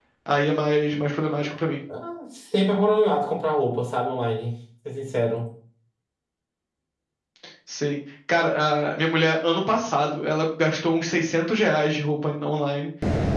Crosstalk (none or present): none